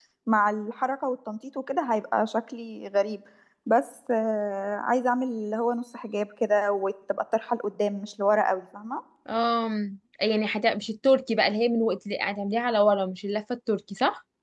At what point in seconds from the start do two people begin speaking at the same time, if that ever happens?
none

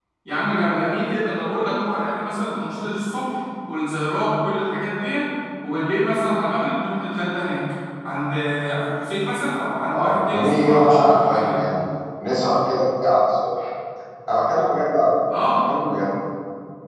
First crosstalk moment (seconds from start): 9.9 s

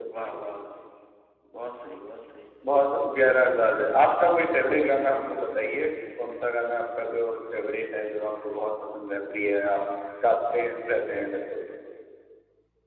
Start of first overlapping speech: none

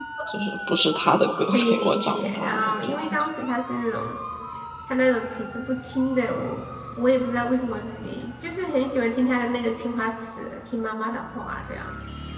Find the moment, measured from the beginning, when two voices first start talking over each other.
1.5 s

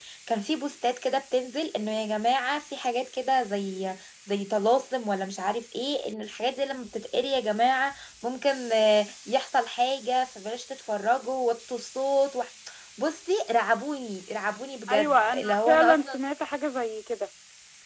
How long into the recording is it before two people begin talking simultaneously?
14.9 s

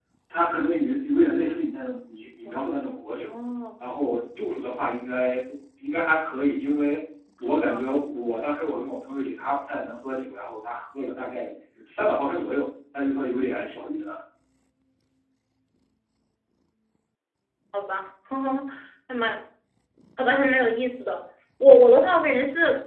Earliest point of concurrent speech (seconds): none

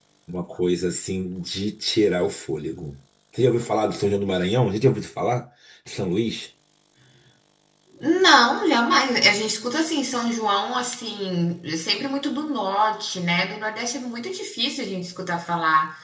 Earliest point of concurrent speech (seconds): none

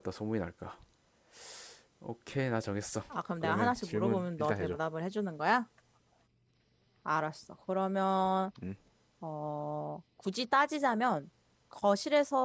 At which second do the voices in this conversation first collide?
3.4 s

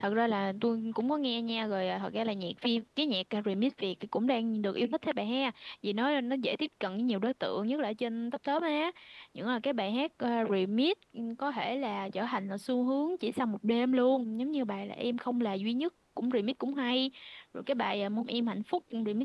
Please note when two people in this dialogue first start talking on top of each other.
none

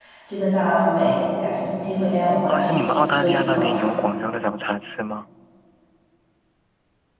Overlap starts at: 2.5 s

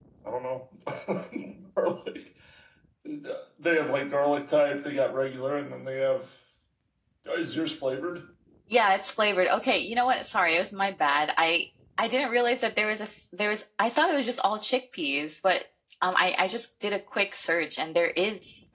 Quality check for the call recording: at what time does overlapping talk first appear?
none

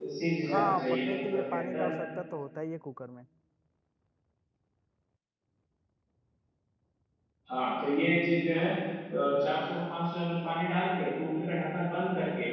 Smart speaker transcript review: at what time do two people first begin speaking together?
0.5 s

